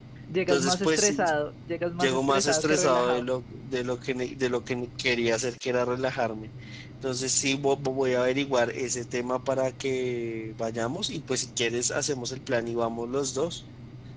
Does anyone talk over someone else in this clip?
Yes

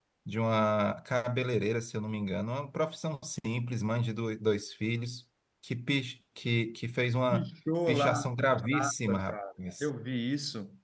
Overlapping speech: Yes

